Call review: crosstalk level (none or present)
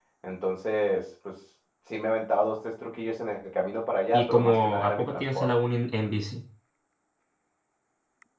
present